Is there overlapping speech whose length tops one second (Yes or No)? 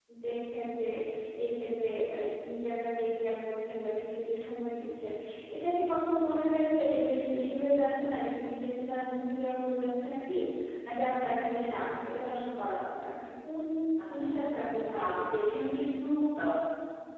Yes